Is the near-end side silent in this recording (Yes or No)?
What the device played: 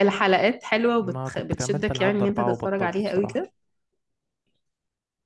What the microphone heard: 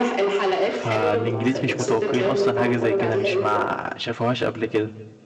No